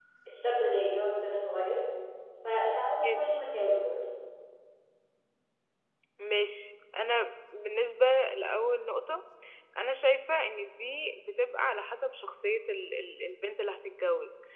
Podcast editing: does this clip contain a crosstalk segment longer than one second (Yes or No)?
No